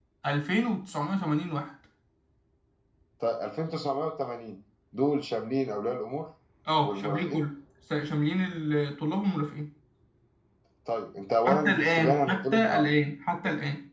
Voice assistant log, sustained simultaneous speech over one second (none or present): present